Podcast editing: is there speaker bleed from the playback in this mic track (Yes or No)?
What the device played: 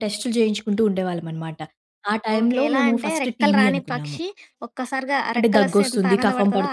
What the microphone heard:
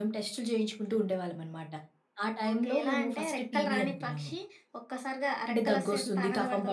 Yes